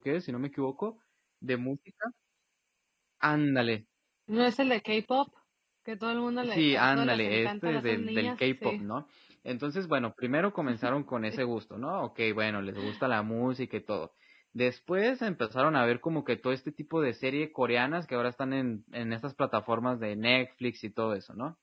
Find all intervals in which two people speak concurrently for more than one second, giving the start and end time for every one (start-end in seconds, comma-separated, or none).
6.4-8.8